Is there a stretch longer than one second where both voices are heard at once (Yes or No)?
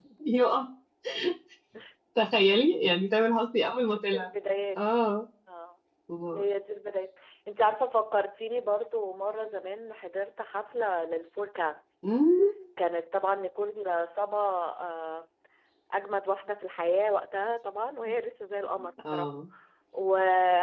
No